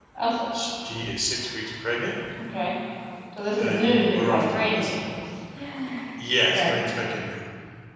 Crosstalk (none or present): present